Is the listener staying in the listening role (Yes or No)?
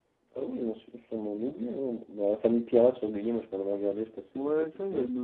No